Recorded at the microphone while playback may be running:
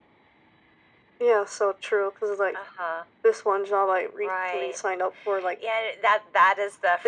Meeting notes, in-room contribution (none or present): none